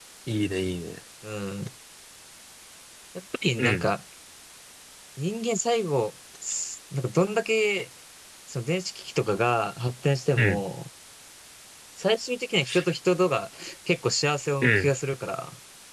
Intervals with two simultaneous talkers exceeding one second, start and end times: none

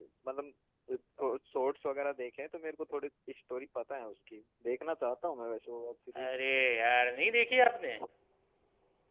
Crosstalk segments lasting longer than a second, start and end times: none

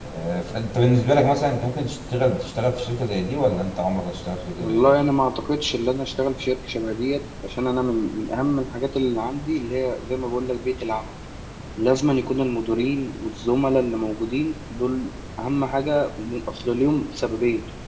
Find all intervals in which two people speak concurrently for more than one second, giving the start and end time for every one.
none

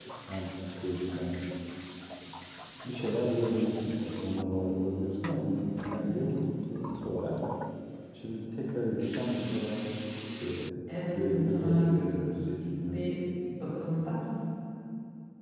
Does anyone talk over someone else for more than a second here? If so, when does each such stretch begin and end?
11.1-12.3

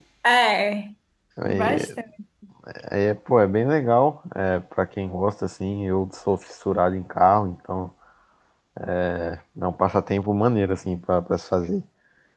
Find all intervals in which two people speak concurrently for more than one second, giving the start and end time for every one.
none

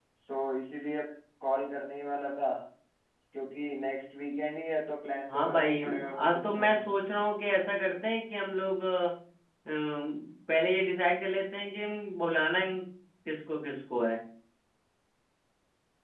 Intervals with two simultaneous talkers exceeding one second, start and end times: 5.3-6.8

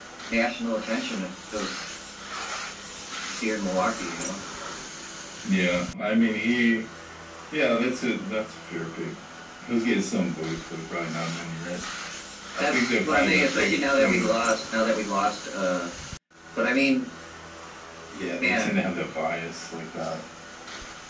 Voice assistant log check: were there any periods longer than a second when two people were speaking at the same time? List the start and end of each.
12.6-14.3

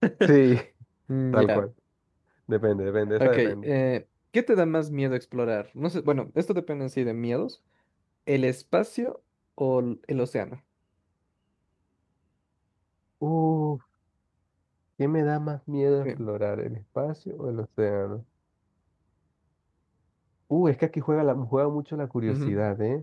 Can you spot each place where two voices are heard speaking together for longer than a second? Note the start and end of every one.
none

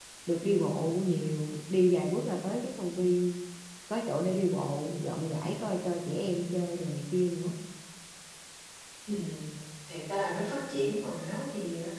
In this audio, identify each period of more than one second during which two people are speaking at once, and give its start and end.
none

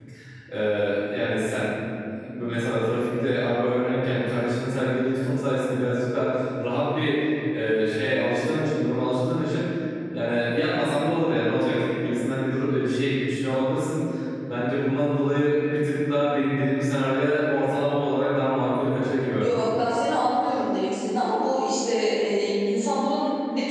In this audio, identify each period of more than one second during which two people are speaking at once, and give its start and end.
none

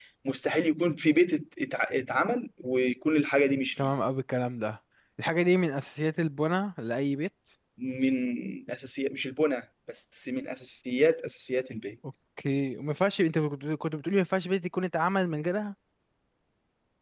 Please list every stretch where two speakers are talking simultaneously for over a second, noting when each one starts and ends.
none

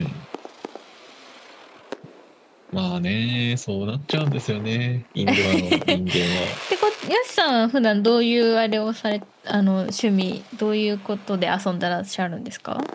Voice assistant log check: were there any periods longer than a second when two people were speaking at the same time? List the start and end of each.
5.3-6.5

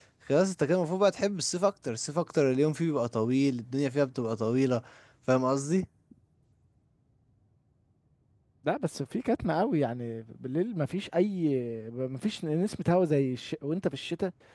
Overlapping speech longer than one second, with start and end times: none

